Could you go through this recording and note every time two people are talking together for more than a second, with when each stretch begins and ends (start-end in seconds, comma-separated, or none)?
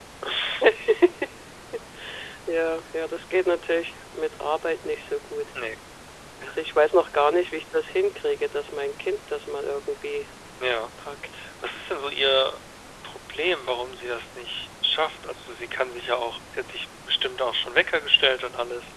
none